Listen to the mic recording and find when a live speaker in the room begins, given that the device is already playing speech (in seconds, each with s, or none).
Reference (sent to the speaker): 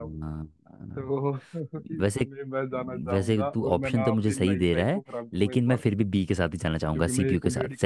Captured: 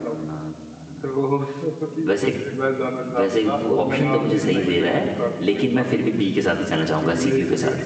4.0 s